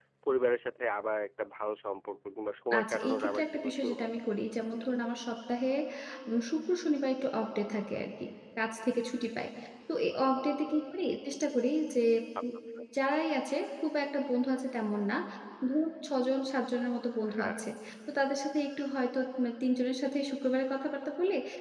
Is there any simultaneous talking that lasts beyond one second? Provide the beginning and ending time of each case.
2.8-4.2

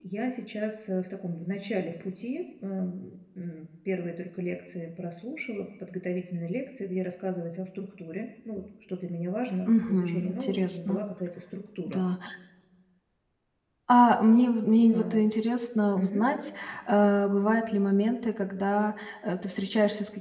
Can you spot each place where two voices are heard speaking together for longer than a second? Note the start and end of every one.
9.7-11.0

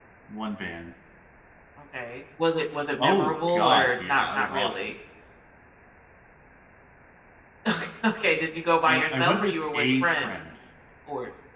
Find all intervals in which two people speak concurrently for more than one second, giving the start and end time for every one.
3.0-4.9, 8.8-10.3

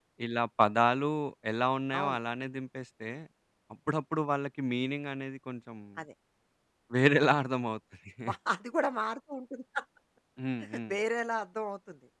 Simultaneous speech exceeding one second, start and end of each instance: none

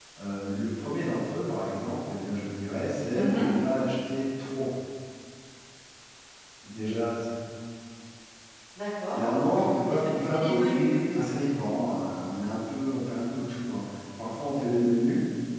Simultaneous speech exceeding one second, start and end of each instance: 9.1-11.2

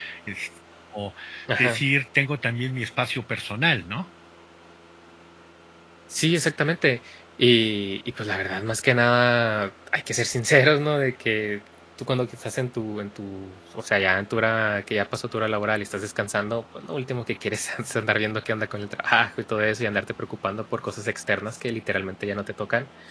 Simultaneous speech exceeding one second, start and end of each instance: none

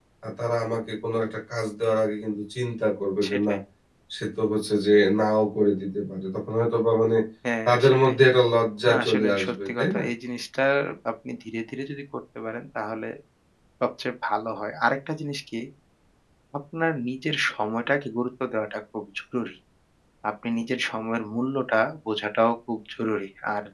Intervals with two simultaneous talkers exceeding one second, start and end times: 8.8-10.1

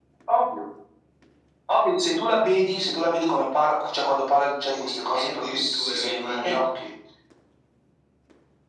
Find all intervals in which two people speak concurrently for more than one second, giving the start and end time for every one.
4.7-6.3

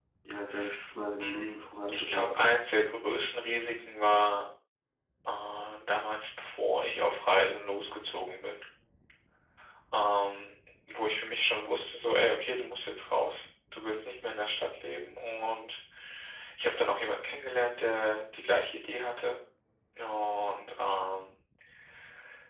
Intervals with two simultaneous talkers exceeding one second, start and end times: 1.2-2.6

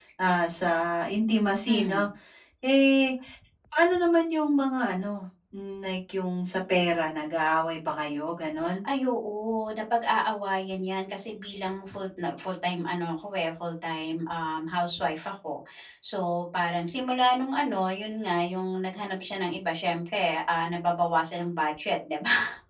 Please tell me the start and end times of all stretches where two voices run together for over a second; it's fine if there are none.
none

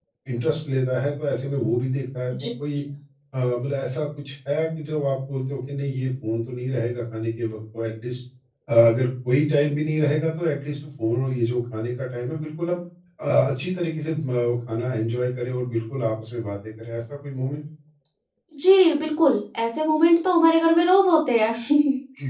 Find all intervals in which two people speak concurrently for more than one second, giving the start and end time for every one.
none

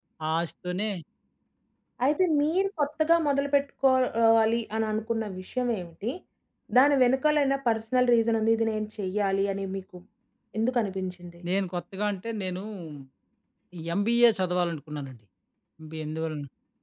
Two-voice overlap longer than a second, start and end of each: none

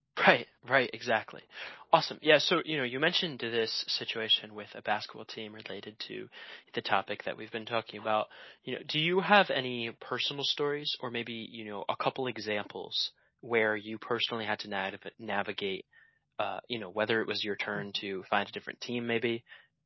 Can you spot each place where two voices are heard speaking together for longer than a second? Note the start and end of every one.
none

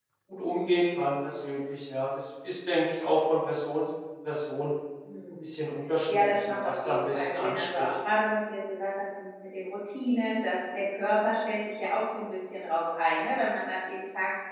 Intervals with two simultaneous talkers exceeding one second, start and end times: 6.1-8.0

